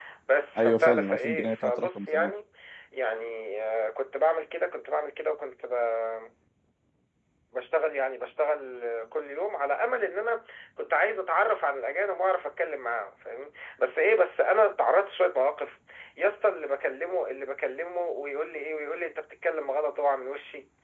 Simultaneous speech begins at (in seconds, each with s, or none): 0.6 s